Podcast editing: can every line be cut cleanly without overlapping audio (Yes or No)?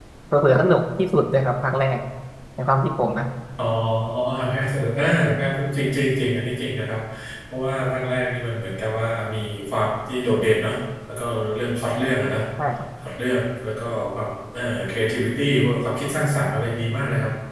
Yes